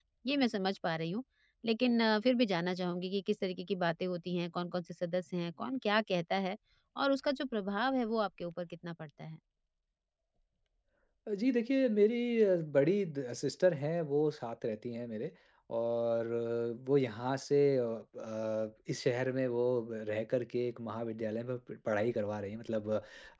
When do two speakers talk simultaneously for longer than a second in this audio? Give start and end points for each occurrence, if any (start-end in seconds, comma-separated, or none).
none